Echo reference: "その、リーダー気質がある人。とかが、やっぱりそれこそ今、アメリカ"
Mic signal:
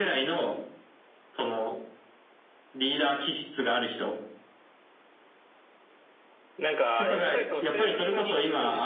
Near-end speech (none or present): present